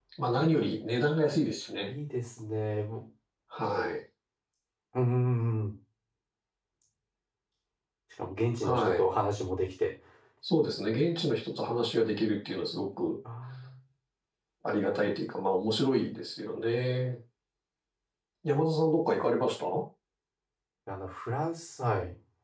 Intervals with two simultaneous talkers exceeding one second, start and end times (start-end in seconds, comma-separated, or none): none